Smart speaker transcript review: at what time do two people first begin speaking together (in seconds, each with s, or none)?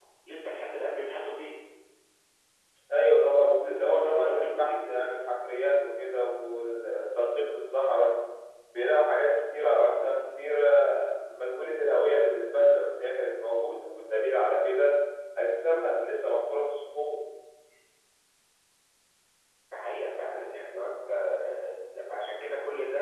3.4 s